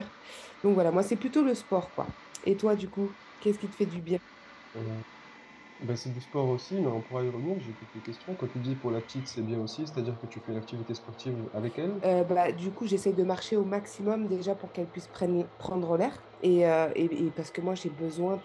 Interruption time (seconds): none

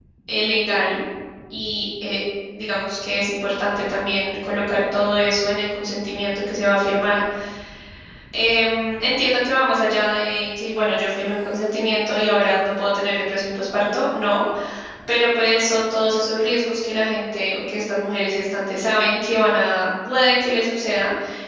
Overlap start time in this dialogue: none

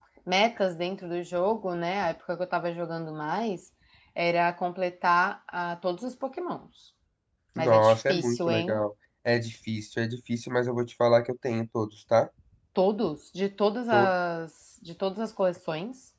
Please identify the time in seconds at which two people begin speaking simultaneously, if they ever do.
7.6 s

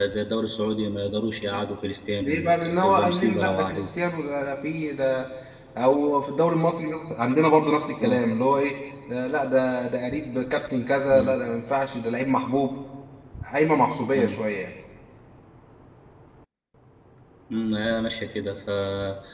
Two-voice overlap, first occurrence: 2.2 s

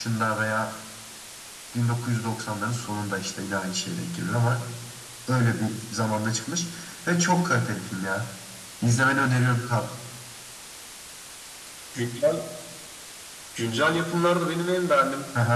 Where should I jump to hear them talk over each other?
none

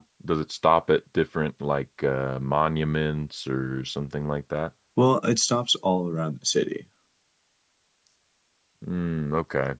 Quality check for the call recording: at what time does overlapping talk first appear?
none

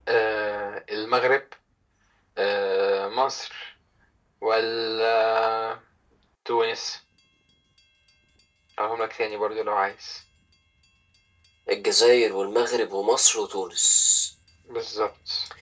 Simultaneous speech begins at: none

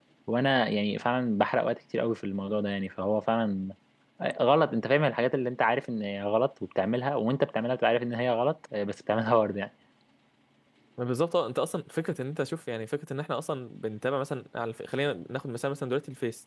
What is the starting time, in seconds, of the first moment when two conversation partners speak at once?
none

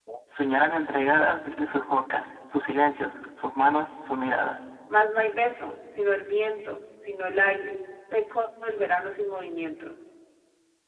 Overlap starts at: none

